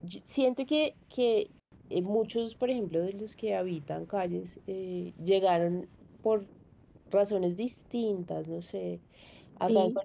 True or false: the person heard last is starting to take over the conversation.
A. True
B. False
B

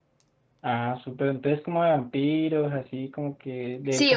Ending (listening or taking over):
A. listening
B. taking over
B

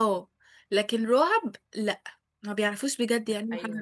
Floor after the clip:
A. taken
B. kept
A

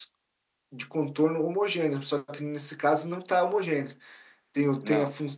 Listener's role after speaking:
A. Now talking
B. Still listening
B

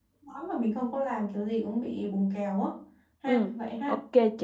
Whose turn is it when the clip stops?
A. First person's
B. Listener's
B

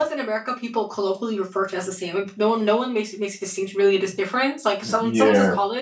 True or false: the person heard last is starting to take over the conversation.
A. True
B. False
B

